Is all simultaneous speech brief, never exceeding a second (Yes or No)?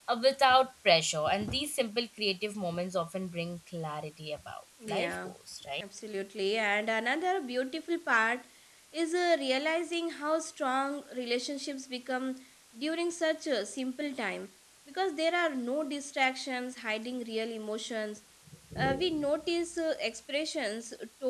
Yes